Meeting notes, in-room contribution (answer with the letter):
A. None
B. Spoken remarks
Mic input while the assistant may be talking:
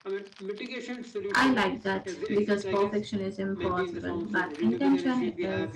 B